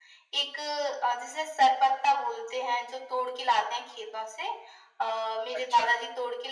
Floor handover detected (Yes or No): No